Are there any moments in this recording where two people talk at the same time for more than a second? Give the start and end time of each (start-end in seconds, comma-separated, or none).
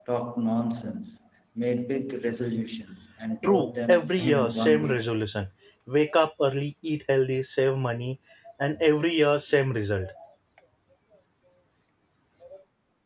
3.4-5.1